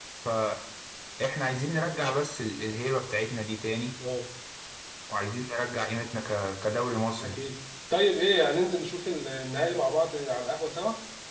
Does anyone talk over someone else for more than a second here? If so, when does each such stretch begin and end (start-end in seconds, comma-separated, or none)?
none